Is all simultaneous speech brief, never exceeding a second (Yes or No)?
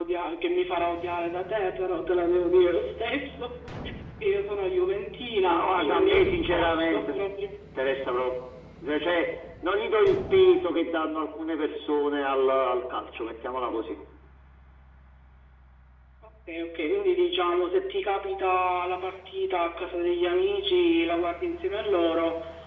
No